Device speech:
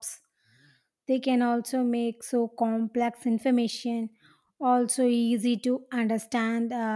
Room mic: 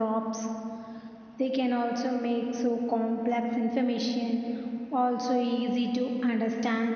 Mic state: echo only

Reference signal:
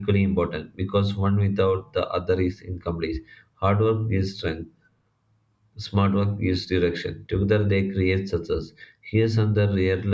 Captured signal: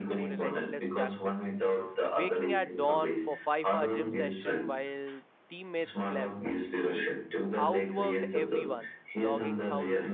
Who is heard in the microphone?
both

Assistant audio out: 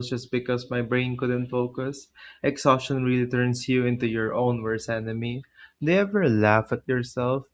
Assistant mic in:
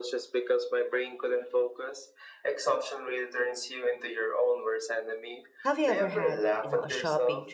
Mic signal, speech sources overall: both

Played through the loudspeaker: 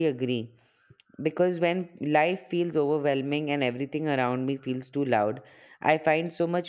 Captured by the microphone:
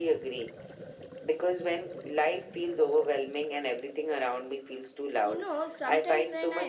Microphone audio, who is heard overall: both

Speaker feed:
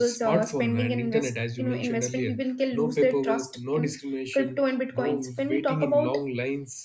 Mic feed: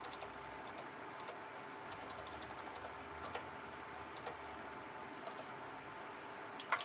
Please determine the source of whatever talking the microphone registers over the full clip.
neither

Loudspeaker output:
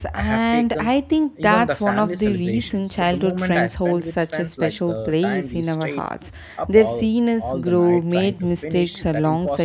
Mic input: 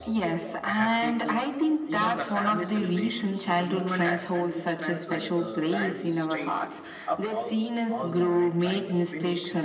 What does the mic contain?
echo only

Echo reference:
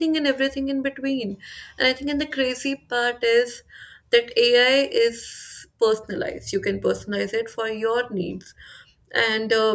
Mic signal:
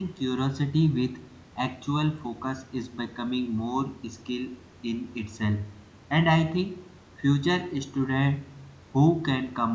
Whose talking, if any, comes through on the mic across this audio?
user only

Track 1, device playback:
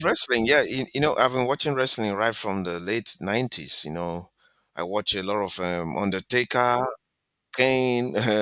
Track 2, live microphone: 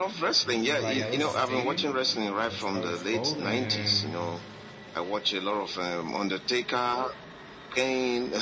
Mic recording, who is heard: both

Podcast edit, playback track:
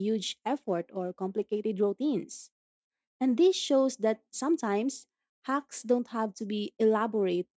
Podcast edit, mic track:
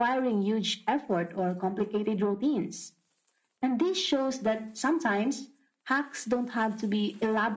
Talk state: echo only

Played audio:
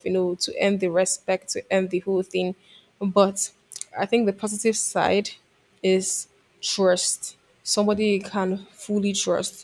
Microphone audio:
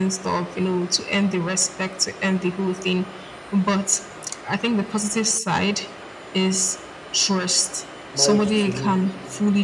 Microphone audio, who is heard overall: both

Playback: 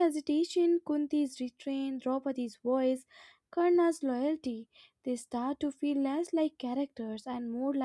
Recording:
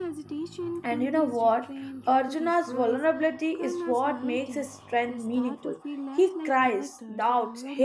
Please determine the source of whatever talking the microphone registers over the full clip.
both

